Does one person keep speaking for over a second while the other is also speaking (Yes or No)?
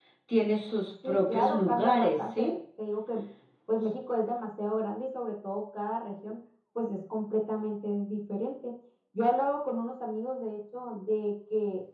Yes